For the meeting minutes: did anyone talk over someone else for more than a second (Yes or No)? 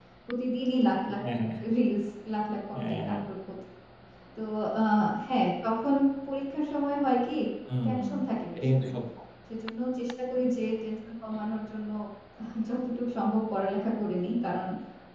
No